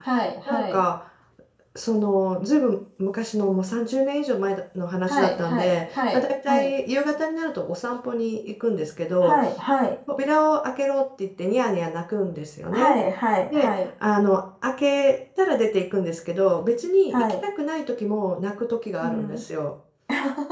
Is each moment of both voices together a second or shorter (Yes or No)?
No